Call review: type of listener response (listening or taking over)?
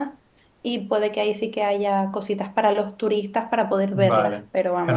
taking over